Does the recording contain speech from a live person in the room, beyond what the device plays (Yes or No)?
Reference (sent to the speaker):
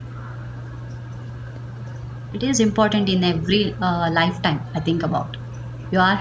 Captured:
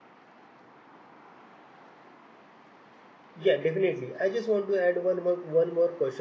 Yes